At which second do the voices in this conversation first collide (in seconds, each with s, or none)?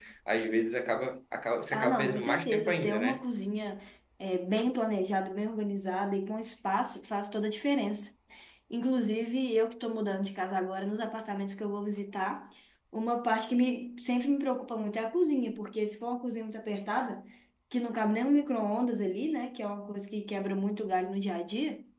1.7 s